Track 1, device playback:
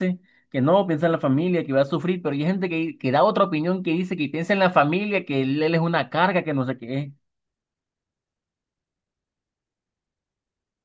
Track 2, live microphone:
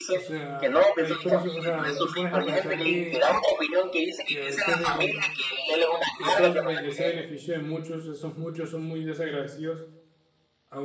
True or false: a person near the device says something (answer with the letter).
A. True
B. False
A